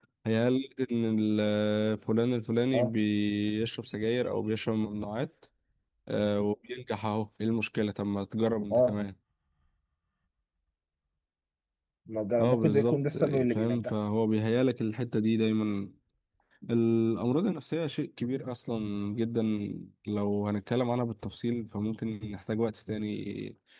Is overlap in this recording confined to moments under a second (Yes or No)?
No